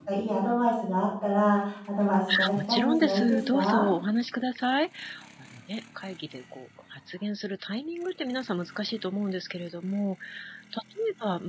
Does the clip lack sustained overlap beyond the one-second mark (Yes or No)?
No